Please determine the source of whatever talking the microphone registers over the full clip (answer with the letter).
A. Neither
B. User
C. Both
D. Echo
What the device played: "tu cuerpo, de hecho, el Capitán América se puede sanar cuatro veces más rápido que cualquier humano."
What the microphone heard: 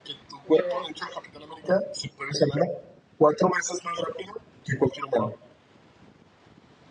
C